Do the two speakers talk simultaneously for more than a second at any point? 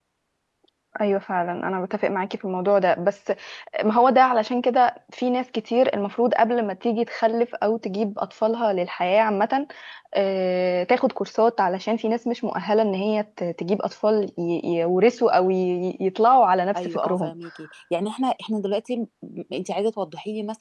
No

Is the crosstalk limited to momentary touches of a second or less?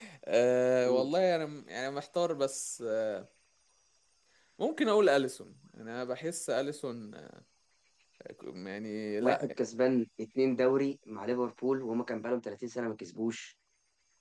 Yes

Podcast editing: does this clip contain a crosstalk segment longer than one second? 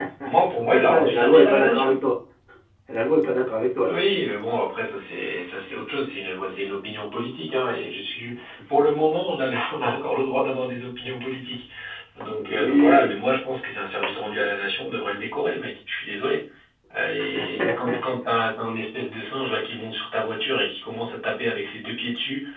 Yes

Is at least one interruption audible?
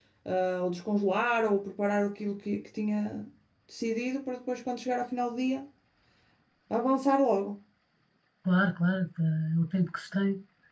No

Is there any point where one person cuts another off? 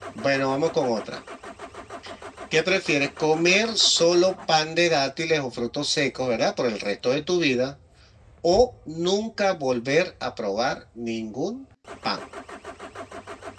No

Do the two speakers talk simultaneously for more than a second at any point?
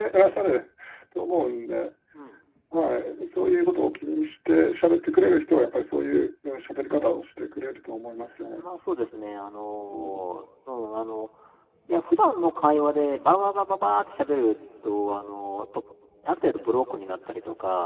No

